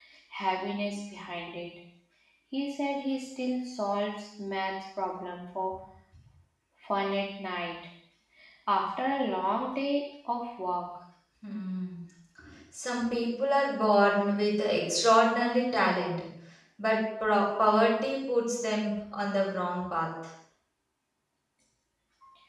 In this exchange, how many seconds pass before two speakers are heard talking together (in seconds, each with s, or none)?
none